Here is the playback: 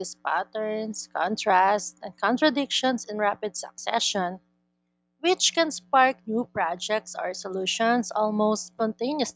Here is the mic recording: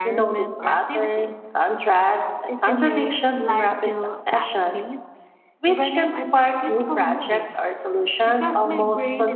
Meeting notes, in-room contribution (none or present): present